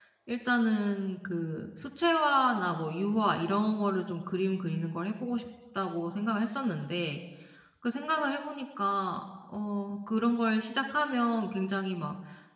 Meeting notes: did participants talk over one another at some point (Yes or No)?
No